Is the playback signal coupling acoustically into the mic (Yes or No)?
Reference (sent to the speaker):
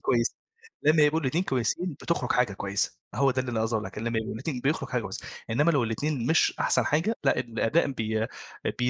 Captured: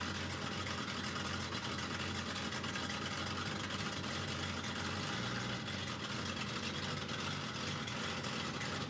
No